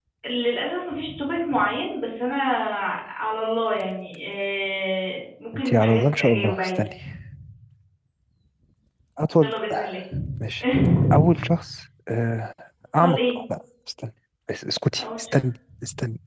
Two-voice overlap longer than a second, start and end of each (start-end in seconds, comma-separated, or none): 5.5-6.8